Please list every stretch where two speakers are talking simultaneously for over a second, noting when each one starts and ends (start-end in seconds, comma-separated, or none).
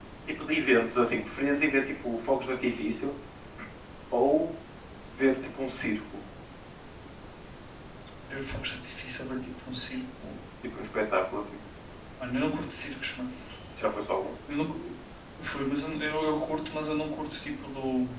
none